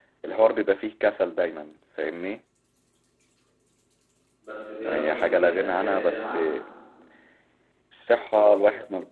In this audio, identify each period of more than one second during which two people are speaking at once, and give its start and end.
4.8-6.4

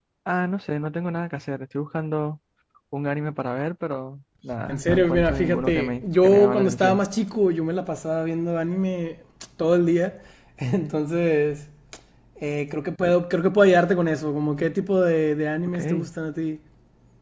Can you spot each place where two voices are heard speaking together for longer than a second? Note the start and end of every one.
4.7-7.0

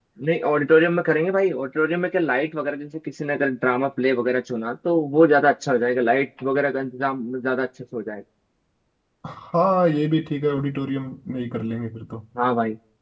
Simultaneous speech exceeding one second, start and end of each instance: none

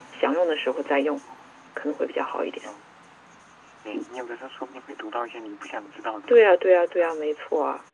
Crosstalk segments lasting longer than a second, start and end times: none

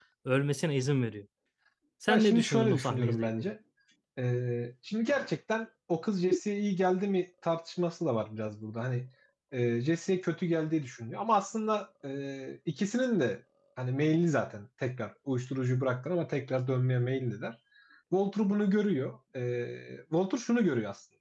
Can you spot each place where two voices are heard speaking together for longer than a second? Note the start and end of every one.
2.1-3.5

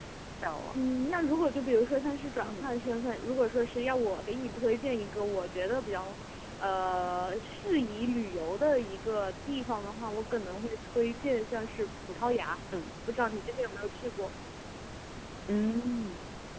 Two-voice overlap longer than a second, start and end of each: none

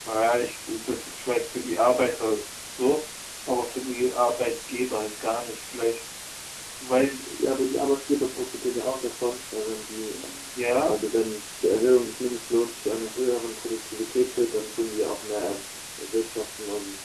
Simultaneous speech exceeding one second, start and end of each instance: none

